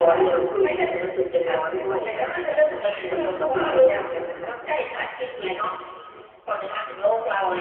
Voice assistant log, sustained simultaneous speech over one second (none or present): present